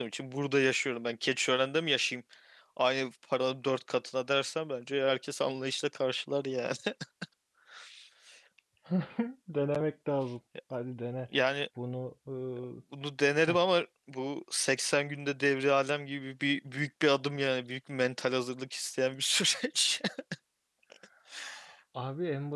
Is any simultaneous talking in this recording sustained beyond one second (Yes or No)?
No